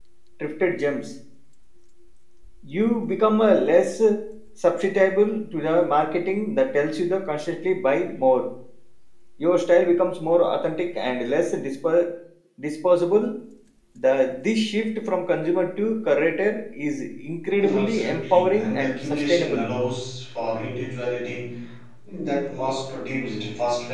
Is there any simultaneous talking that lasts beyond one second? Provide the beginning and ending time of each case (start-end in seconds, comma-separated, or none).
17.6-19.7